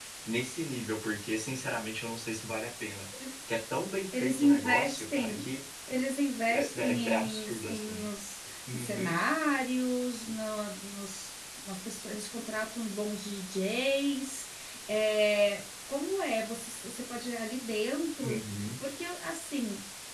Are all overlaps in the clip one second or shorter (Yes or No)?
No